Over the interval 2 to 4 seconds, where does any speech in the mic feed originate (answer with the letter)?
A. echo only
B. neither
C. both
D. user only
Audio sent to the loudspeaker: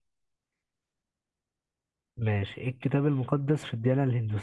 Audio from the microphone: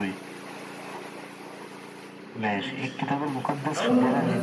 C